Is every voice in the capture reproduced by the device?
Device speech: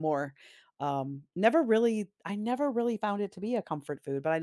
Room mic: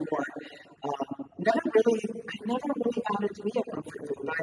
Yes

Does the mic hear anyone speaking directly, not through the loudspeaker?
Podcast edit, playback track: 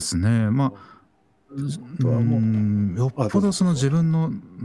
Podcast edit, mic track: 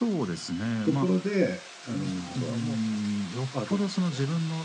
Yes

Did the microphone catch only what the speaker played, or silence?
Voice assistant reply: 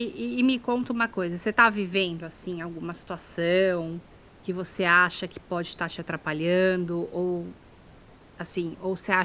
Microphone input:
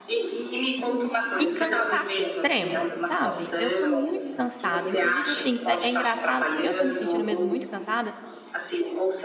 No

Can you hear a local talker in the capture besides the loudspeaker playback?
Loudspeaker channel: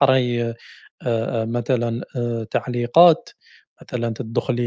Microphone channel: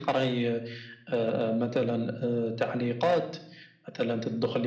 No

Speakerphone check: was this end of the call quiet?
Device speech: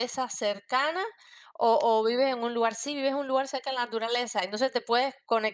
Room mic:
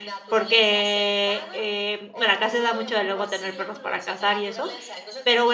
No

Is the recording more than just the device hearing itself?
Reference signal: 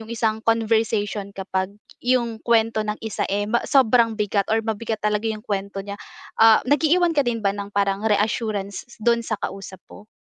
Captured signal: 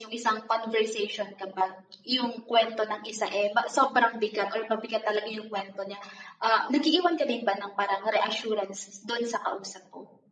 No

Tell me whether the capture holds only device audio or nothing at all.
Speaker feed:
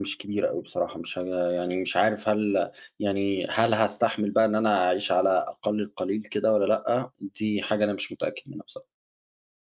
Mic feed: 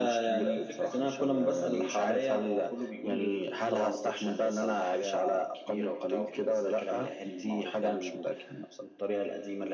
No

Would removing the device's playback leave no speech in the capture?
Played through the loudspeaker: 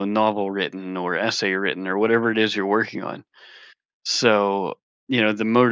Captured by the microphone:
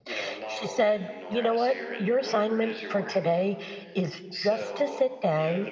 No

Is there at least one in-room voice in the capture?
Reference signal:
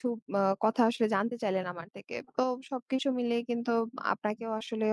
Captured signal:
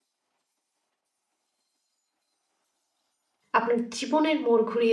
Yes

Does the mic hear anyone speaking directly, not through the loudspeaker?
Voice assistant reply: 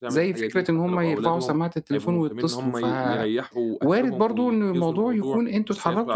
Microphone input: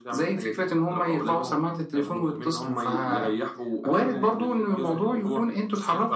Yes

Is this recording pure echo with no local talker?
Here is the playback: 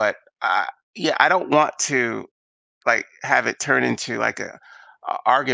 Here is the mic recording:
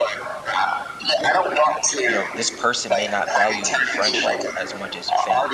No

